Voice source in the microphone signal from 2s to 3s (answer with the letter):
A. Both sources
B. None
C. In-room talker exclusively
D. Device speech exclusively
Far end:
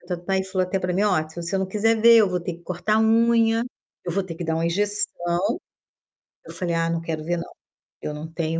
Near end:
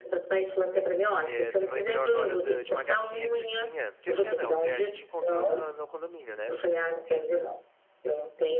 A